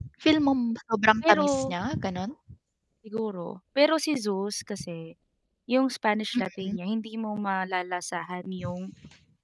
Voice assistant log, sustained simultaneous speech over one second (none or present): none